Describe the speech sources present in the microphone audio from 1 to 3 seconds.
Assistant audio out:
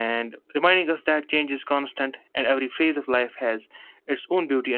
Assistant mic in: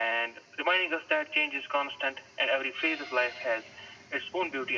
echo only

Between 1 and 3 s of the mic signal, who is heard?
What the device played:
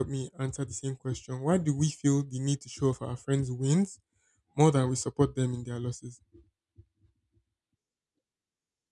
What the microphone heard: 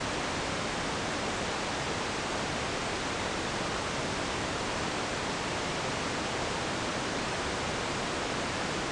neither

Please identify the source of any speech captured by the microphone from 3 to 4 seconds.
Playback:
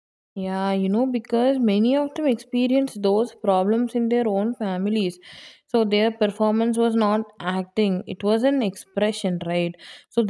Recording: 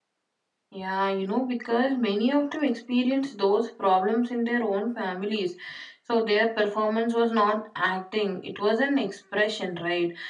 echo only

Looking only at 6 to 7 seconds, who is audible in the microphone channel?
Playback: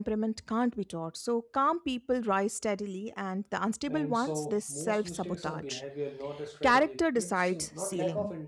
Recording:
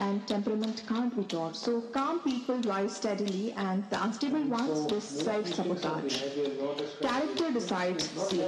echo only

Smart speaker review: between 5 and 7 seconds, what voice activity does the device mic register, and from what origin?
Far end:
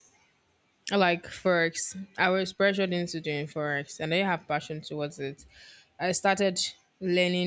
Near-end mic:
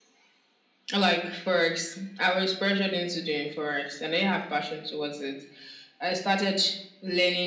echo only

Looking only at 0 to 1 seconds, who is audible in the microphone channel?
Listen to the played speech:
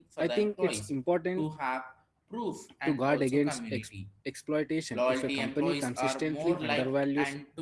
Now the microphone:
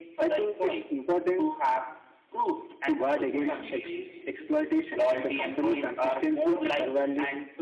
echo only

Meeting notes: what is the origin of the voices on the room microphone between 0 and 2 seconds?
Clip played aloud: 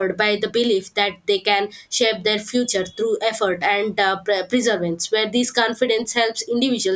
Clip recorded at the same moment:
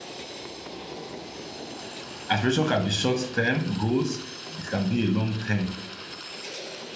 neither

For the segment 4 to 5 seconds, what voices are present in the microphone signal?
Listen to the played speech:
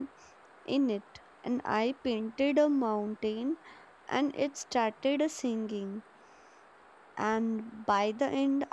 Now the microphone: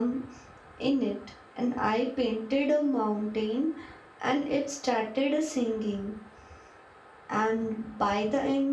echo only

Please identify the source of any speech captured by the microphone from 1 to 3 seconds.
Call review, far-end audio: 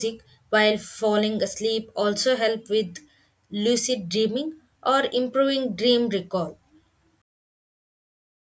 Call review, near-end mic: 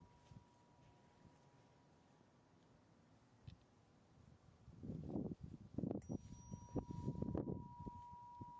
neither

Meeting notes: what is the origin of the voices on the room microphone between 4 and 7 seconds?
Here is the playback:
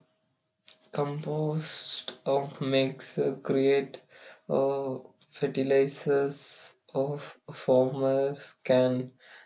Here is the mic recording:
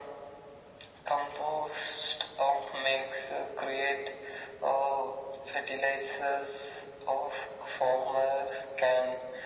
echo only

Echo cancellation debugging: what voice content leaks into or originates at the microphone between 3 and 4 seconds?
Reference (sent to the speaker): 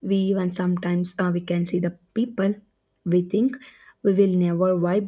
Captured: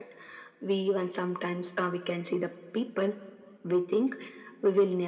echo only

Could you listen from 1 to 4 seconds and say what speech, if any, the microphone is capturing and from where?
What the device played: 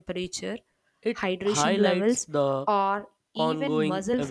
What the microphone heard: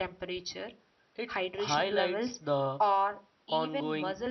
echo only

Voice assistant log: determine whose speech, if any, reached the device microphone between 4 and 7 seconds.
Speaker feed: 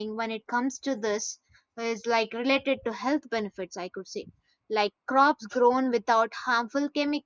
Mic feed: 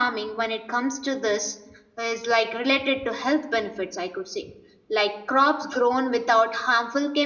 echo only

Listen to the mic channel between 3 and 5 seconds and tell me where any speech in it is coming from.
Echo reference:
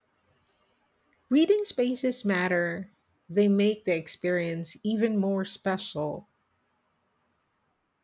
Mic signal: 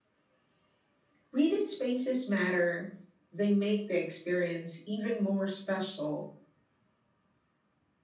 echo only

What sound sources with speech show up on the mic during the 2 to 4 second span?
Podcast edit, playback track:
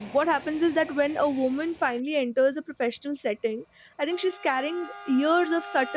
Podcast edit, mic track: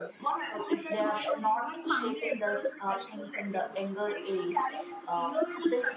both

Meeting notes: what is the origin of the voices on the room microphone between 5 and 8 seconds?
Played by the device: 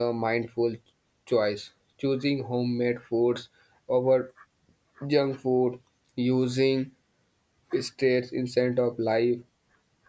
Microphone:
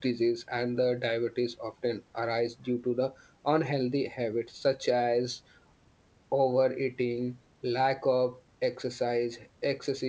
user only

